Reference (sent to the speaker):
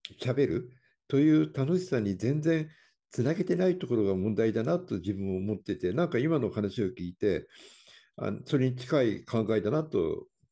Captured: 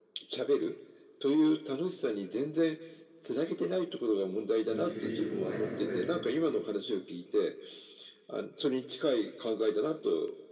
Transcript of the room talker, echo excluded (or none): モチベーションも湧いてこない。